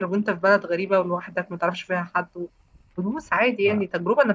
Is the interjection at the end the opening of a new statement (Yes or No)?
No